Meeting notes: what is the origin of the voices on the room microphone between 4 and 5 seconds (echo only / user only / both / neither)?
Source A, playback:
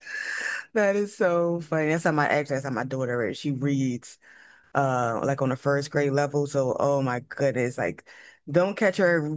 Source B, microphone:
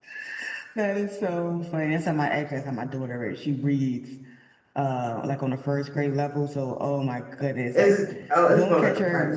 echo only